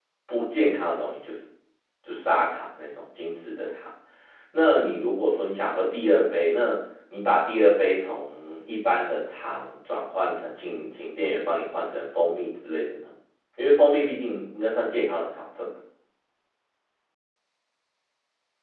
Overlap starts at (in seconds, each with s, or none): none